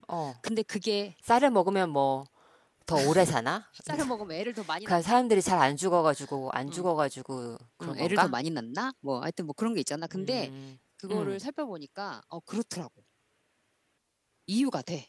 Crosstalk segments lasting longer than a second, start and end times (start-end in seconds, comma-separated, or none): none